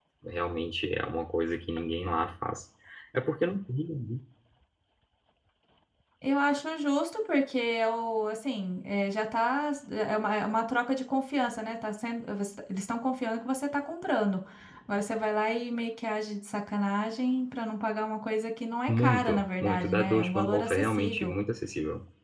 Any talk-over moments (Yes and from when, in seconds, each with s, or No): Yes, from 18.9 s